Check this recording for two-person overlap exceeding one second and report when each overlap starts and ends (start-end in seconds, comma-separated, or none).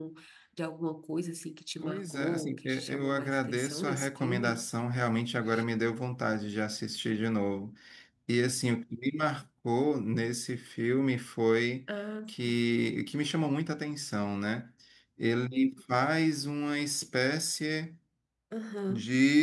1.8-4.6